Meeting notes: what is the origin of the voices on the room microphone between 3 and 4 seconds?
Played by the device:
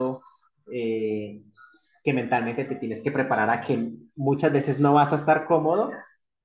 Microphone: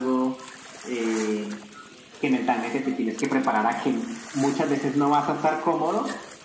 echo only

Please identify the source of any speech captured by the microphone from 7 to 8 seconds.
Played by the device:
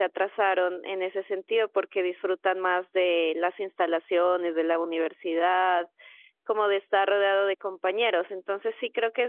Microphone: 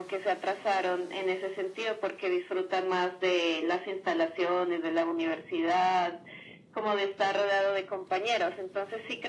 echo only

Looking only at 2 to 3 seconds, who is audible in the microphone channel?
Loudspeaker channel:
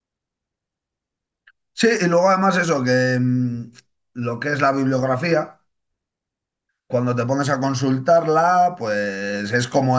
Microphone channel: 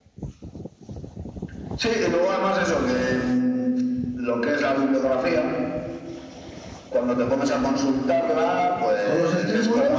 echo only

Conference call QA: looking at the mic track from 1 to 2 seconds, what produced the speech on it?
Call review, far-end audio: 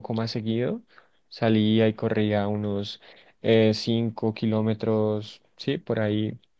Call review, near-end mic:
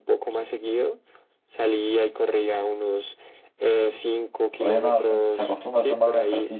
echo only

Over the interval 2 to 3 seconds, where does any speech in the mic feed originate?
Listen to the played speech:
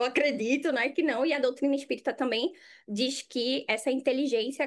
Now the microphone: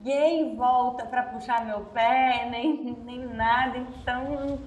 user only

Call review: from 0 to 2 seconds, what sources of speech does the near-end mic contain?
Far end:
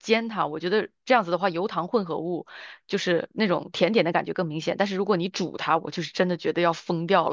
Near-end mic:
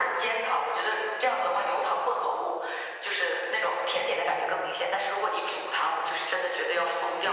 echo only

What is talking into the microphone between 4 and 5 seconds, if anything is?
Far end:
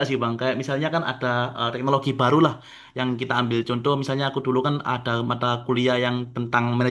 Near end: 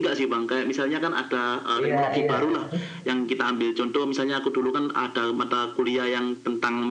echo only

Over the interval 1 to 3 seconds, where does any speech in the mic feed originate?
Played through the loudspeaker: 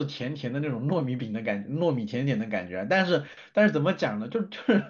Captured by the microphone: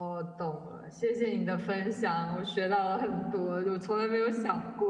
user only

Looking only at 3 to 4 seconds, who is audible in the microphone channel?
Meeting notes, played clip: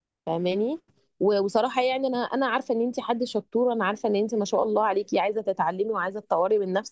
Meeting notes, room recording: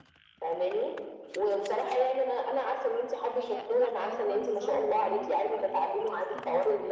both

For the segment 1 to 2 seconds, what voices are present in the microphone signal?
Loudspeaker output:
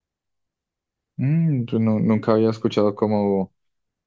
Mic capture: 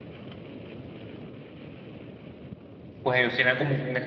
neither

